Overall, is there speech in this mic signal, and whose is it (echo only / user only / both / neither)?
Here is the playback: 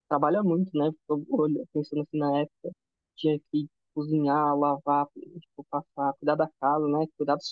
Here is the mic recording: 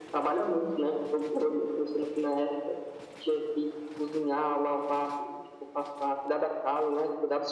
echo only